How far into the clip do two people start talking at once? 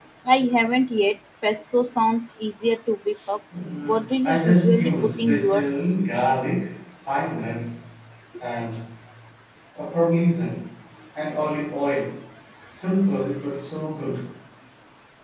3.9 s

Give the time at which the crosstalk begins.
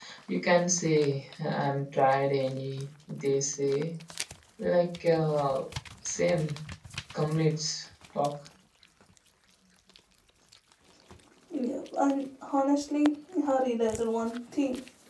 none

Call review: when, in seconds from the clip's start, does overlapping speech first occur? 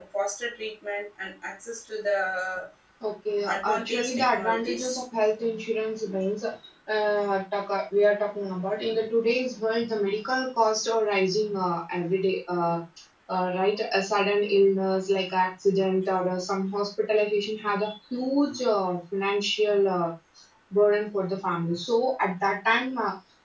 3.5 s

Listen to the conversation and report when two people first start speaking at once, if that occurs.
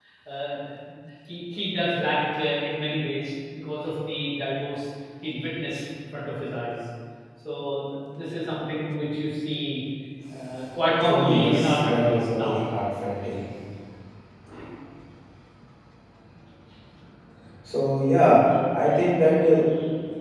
11.1 s

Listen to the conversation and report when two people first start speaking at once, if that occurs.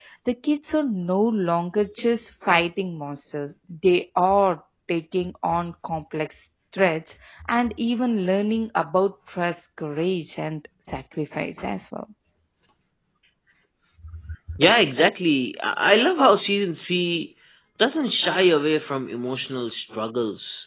none

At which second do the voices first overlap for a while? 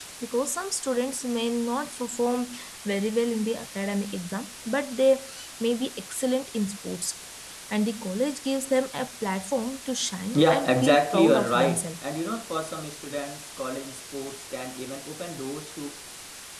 10.3 s

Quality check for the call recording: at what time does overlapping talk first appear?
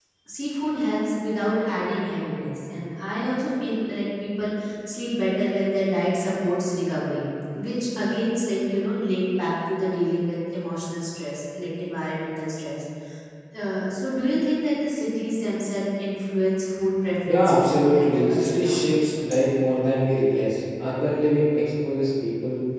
17.3 s

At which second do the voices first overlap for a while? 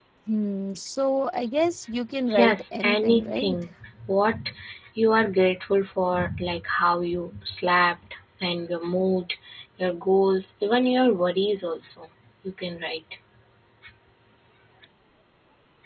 2.3 s

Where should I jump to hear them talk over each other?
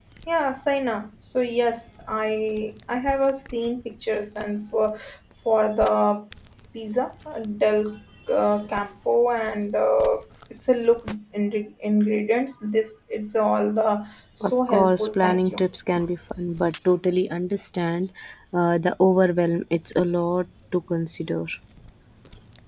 14.4 s

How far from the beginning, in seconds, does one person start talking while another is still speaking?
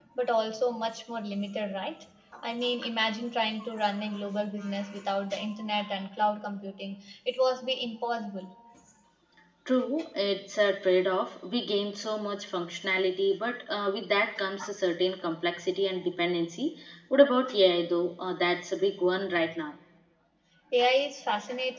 none

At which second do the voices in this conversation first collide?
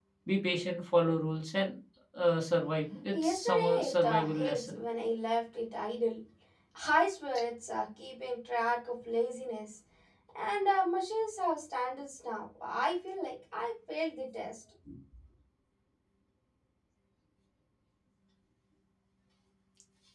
3.1 s

